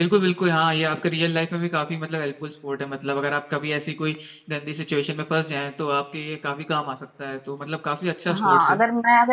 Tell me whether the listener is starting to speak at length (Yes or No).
Yes